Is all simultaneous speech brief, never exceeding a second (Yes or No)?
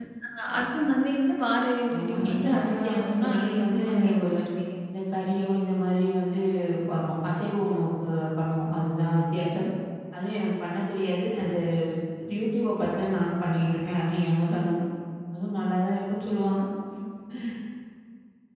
No